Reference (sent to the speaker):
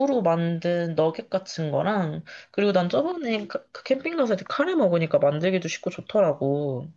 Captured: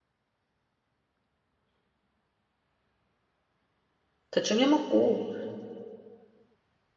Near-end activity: present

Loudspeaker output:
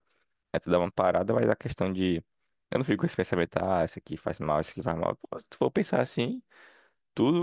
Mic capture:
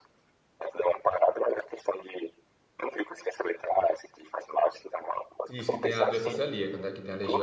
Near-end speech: present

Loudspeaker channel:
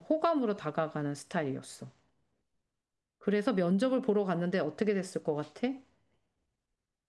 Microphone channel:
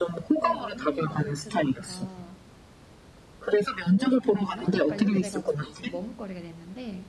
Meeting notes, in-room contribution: present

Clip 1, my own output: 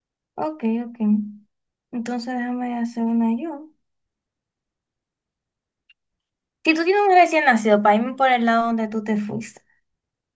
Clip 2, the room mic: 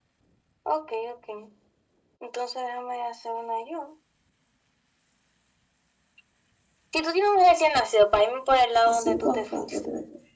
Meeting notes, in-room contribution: present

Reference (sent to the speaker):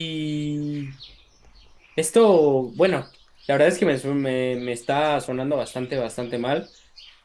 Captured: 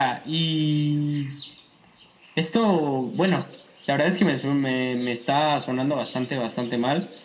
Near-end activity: none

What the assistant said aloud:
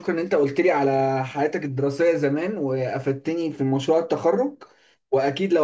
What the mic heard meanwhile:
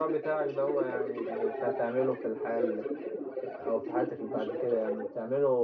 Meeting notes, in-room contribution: present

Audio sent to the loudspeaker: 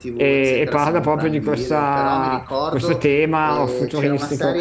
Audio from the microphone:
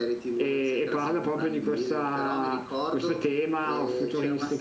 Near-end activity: none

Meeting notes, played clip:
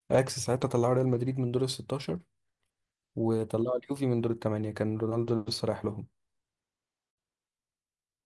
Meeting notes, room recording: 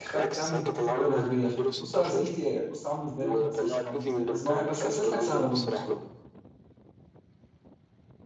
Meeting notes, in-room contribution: present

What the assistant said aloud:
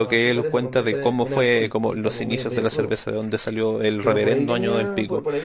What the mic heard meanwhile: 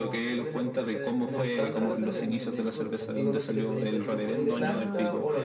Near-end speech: present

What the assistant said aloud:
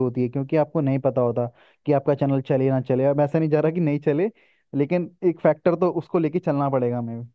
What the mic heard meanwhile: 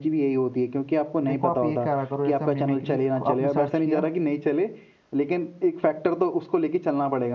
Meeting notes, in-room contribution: present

